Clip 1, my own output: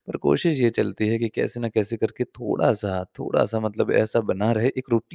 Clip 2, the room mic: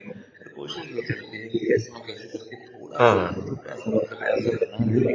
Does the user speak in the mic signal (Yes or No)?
Yes